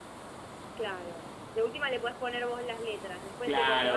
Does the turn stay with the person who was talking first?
No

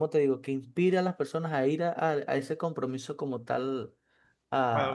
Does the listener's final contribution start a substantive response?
Yes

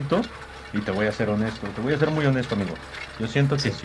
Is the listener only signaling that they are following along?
Yes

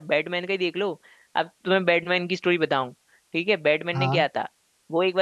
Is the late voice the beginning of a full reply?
No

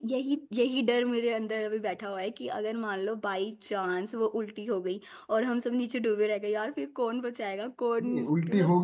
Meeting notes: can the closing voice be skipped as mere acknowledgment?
No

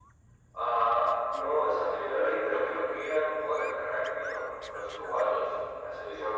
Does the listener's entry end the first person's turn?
No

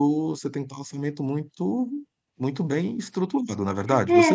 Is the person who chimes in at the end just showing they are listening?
No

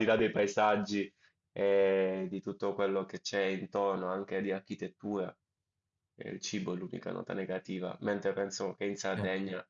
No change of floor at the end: No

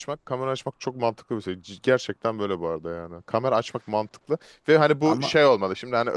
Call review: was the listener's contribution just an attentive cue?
Yes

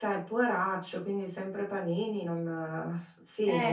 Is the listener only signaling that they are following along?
No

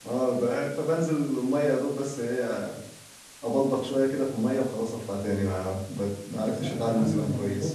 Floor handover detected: Yes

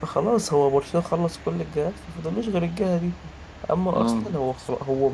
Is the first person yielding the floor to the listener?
No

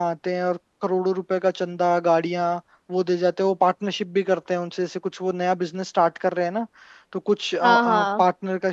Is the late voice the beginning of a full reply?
No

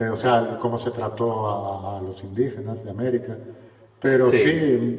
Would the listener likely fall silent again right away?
Yes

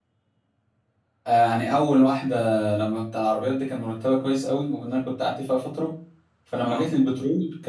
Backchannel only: Yes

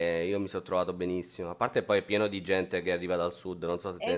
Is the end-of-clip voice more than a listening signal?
Yes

